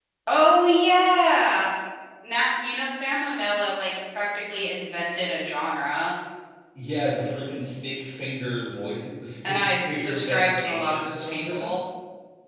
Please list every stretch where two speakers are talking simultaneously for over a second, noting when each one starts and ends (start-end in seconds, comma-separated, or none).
9.4-11.7